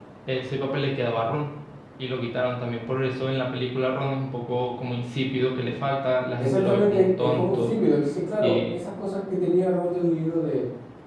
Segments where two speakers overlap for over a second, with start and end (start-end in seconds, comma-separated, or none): 6.4-7.7